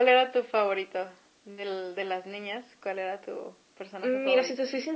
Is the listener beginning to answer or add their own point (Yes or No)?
Yes